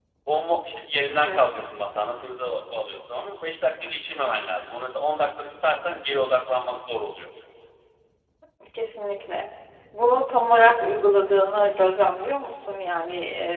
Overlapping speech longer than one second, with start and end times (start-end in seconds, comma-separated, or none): none